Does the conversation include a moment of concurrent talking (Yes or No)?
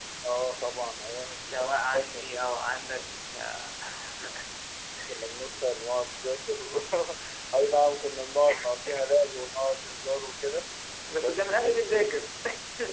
Yes